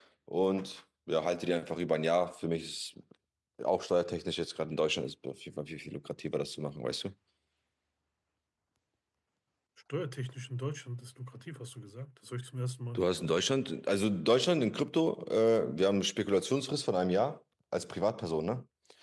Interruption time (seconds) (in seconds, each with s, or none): none